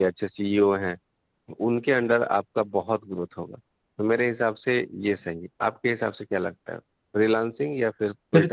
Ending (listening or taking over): taking over